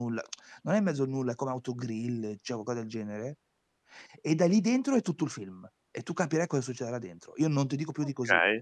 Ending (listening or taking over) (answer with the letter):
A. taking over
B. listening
A